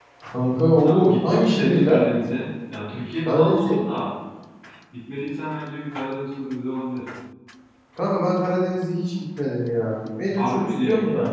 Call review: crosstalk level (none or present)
present